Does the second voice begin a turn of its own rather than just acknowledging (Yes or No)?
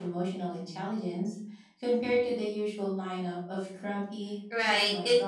Yes